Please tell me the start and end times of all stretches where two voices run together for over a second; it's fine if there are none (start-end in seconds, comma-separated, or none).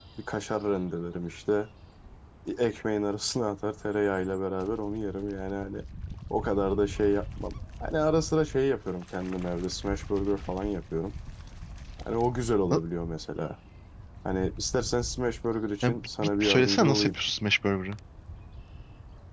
15.8-17.2